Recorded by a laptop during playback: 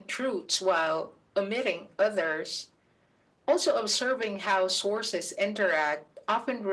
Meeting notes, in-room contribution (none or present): none